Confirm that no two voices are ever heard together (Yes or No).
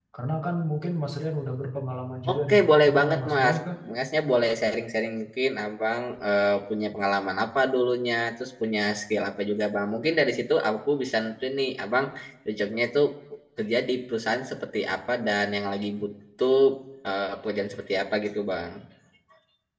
No